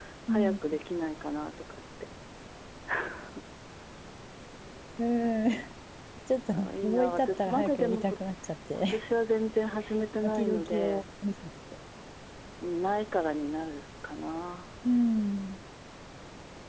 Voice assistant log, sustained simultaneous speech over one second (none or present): present